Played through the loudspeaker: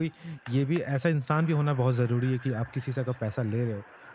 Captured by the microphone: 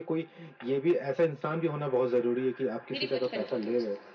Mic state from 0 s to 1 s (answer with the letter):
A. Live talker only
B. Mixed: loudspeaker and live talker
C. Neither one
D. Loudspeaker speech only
D